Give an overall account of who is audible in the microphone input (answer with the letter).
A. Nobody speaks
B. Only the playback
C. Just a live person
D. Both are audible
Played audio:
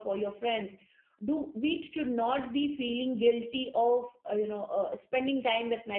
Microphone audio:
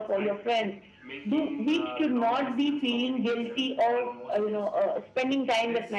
D